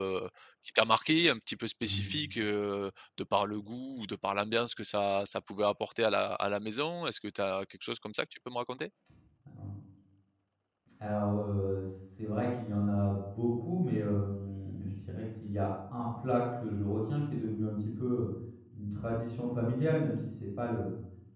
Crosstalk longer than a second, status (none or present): none